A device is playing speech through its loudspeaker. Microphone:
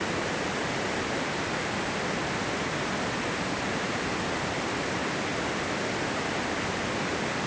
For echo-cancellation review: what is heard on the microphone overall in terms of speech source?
neither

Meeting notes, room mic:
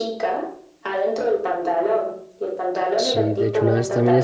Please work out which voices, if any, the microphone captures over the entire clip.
both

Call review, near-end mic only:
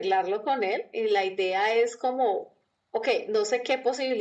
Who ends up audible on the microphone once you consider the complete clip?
echo only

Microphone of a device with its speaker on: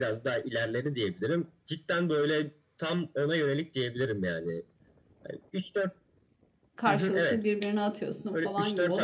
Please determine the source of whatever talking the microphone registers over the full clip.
both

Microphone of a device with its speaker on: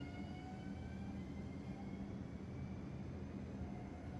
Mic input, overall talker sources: neither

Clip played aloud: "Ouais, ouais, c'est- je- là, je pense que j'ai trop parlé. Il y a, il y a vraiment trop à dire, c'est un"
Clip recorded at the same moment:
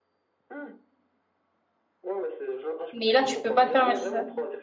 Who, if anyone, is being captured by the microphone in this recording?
both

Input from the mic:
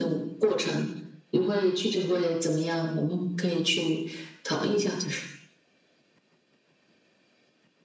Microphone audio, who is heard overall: echo only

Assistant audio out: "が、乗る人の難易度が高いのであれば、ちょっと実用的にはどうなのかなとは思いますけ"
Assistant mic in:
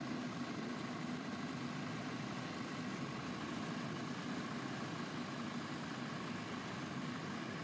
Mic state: neither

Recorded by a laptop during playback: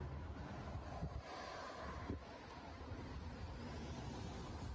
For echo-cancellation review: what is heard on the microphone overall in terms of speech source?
neither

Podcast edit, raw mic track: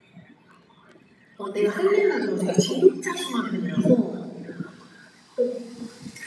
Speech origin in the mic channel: echo only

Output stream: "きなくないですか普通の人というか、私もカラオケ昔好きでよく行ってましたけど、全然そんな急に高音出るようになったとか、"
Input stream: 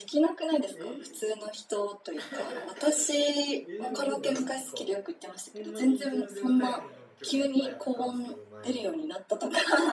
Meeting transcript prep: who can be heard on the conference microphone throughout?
both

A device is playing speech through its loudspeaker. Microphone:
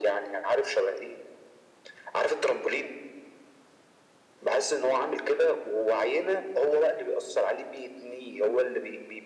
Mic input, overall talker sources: echo only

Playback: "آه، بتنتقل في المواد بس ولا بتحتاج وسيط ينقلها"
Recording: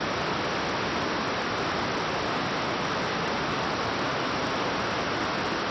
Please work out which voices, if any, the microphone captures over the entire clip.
neither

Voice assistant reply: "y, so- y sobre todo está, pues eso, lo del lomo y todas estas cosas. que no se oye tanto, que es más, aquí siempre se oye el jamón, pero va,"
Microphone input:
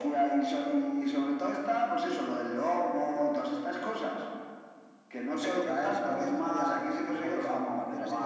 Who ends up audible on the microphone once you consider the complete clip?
both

